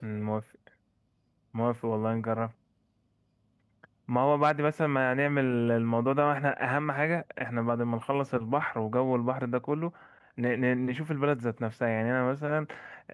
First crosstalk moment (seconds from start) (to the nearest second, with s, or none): none